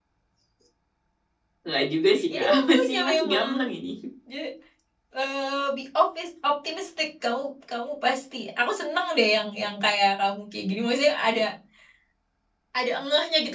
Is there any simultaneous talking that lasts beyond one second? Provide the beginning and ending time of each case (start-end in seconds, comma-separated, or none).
2.3-3.5